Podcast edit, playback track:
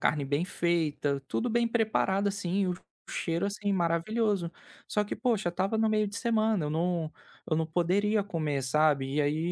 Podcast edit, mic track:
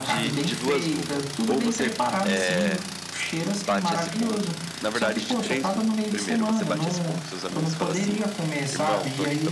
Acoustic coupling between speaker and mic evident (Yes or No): Yes